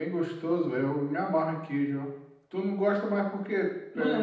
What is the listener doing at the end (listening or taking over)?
taking over